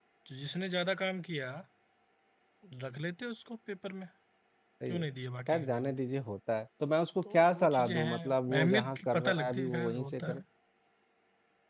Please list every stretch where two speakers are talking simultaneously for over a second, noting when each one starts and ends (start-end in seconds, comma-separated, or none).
7.2-10.4